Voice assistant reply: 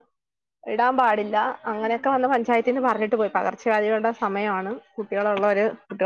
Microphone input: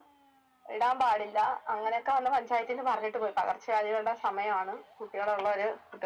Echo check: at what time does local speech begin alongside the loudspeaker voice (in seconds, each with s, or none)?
none